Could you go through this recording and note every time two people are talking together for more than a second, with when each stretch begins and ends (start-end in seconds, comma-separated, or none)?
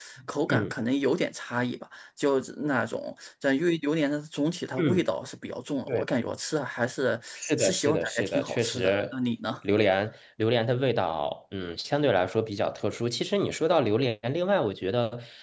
7.6-9.1